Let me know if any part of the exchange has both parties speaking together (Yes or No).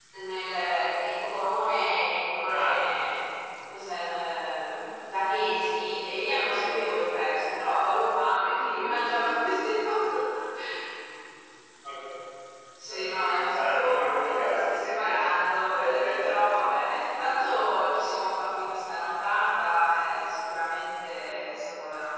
Yes